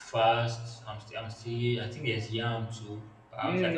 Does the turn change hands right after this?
Yes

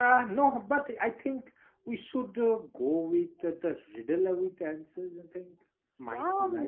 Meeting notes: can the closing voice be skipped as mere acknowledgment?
No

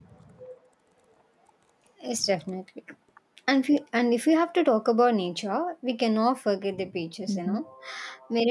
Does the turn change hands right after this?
No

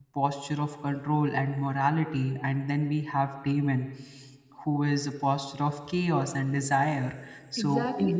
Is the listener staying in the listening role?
No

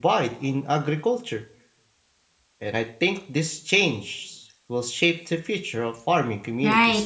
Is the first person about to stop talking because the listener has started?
Yes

